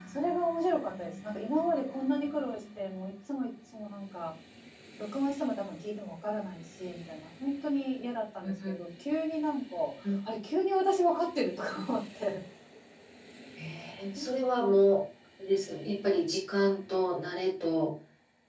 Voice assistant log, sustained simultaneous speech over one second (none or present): none